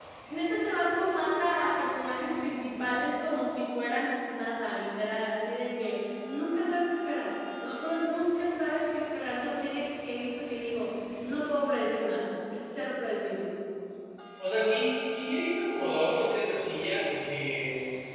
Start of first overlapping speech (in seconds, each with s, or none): none